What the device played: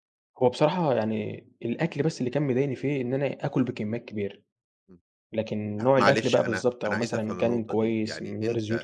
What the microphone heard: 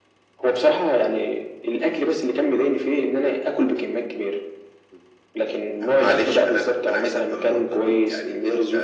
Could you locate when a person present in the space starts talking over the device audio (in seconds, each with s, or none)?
none